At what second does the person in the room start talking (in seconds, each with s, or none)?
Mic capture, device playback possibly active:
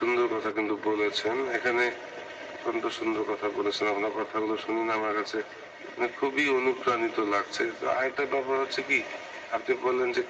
none